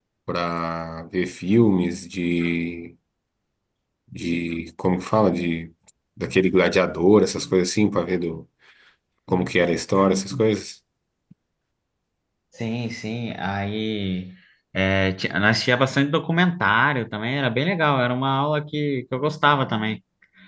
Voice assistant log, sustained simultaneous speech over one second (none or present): none